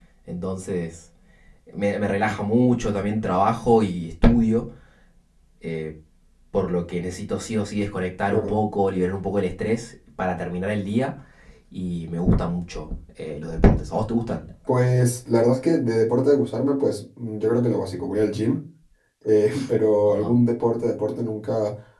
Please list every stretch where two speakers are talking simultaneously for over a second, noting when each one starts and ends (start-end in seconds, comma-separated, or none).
none